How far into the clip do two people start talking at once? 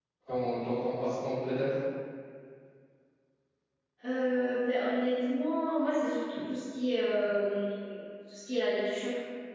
none

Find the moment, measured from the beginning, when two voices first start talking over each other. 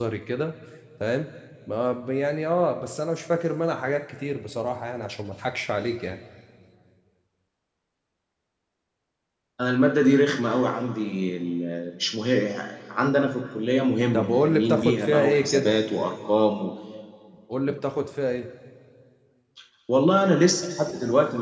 14 s

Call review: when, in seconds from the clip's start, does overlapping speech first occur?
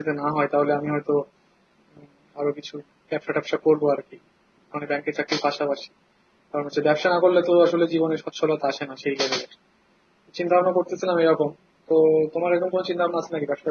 none

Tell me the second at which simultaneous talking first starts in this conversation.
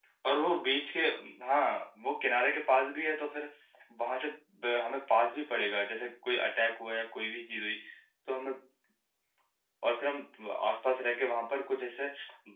none

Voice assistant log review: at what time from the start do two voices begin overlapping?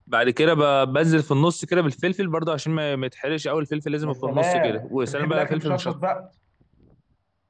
4 s

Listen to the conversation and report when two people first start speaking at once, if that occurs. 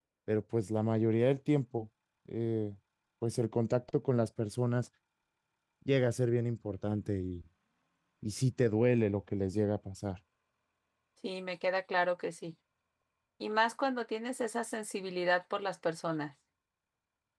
none

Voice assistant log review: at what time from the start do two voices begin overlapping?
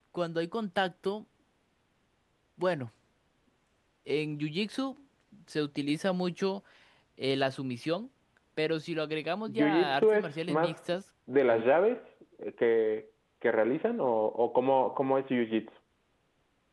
9 s

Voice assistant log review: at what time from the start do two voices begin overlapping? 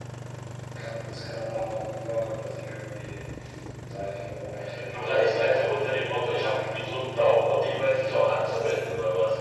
5 s

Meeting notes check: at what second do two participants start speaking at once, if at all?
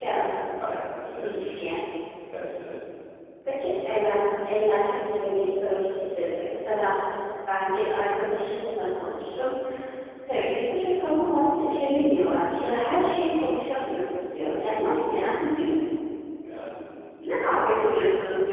none

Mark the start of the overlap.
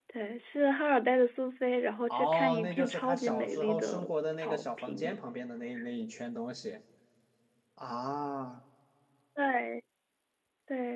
2 s

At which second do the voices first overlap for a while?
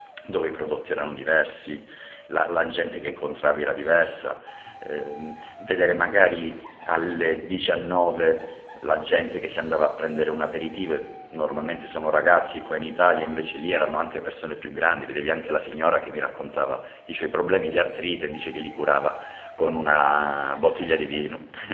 none

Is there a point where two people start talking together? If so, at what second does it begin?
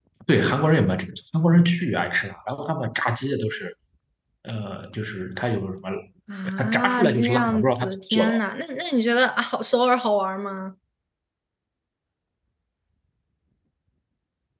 7 s

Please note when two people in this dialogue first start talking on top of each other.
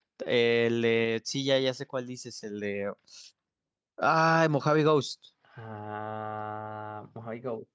none

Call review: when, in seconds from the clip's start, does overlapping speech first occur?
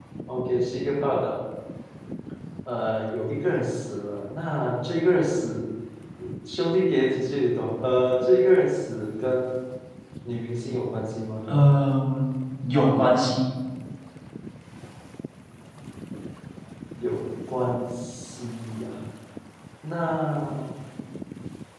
none

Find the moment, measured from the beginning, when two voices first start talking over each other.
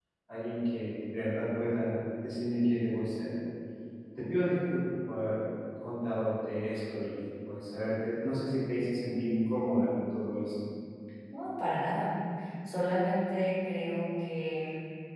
none

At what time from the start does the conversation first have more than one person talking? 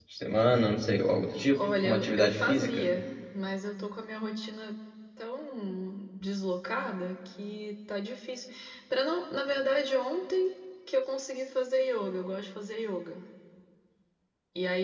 1 s

